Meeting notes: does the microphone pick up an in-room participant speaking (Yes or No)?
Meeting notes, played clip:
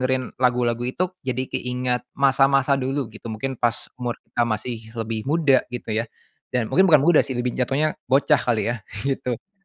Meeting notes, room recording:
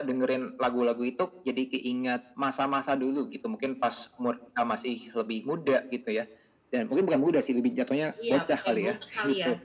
Yes